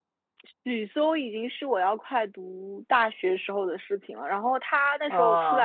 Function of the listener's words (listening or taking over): listening